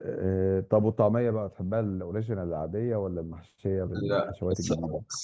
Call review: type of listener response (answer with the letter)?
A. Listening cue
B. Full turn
B